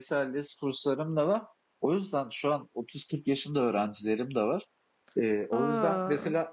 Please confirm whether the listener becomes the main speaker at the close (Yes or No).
No